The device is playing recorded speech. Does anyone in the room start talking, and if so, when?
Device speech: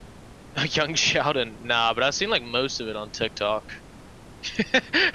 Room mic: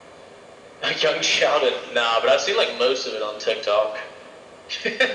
none

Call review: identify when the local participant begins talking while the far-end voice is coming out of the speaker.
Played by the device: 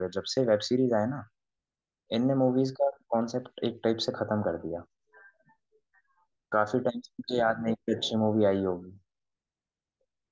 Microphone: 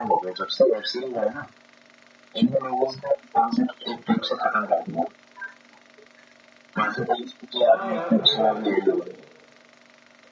7.6 s

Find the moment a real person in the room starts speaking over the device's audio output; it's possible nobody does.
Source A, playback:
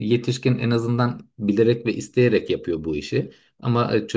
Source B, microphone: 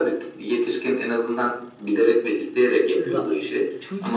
3.0 s

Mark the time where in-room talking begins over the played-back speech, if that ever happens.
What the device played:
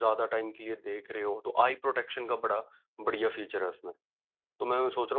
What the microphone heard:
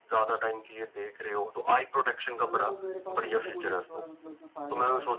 2.4 s

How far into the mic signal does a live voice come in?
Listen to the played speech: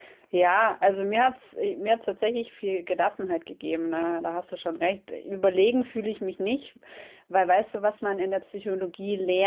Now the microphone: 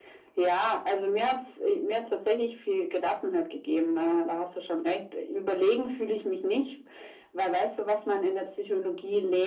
none

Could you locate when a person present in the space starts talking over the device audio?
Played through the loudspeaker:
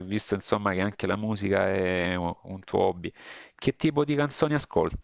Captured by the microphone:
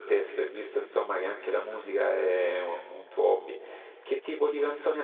none

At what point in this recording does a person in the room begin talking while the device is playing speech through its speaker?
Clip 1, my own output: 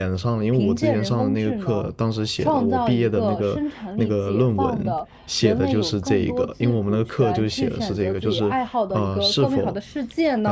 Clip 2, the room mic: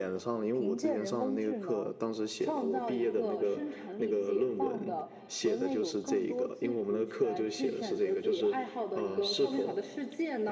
none

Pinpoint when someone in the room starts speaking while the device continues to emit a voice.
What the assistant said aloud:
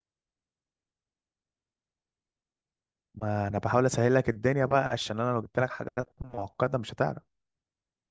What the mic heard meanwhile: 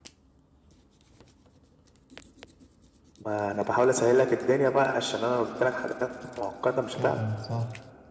6.9 s

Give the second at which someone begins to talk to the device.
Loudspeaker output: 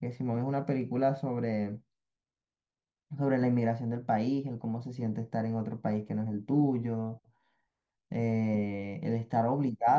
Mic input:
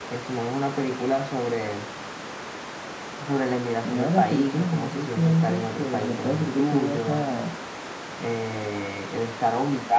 3.8 s

